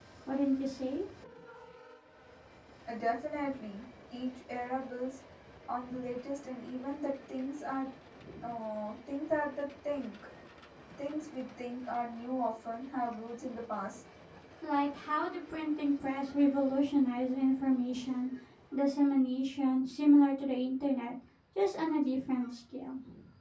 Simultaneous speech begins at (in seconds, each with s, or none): none